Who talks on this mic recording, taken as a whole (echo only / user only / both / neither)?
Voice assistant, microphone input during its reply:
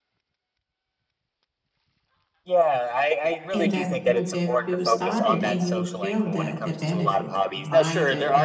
both